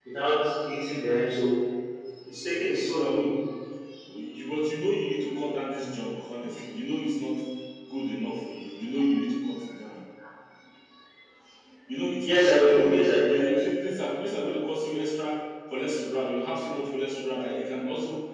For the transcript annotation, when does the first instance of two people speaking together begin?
12.2 s

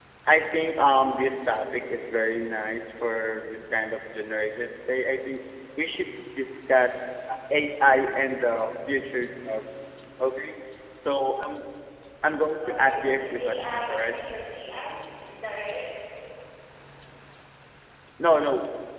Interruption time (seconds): 12.6 s

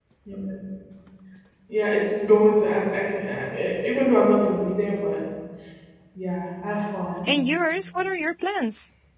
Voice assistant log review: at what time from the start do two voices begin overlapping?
none

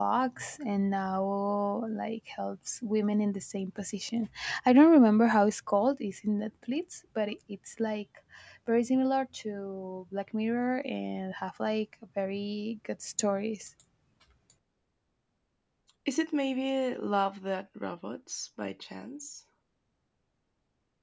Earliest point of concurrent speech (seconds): none

